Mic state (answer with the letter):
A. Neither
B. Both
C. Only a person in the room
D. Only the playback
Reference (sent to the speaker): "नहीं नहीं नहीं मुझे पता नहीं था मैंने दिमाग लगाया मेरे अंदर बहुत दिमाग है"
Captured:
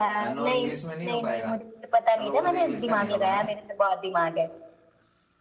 B